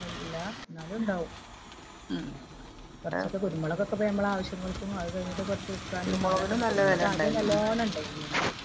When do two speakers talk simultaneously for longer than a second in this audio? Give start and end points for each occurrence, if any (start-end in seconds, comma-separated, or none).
6.0-7.4